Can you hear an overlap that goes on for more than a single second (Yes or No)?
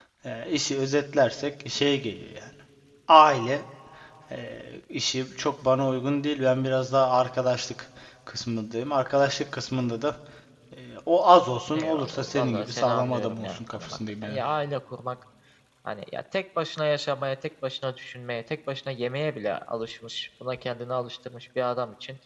Yes